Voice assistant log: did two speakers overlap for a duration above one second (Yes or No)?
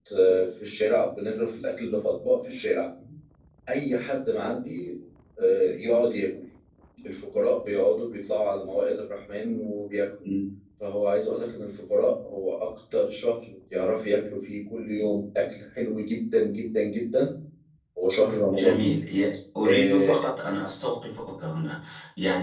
No